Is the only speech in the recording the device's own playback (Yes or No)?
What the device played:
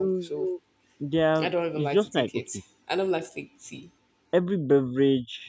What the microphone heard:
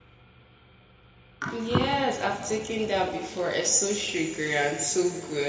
No